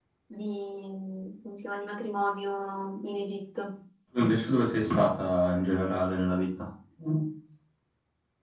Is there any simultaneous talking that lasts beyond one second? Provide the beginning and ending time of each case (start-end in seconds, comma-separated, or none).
none